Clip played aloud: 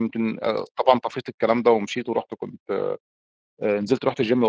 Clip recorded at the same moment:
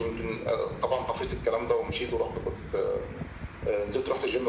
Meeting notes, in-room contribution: none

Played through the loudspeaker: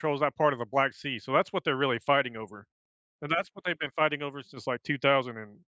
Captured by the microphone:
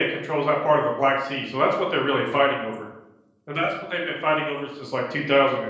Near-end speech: none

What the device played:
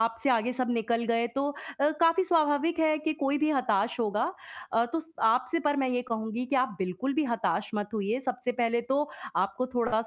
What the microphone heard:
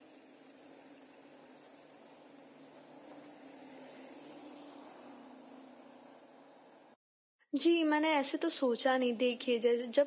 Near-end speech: present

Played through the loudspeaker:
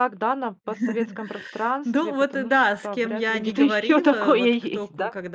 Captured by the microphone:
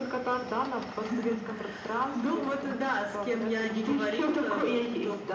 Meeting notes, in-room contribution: none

